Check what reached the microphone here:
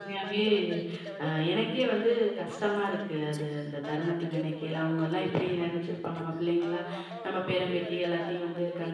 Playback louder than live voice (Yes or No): No